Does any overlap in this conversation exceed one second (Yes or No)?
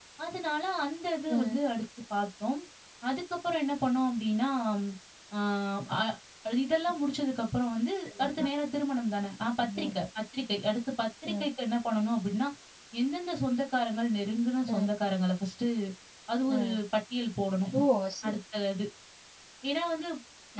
No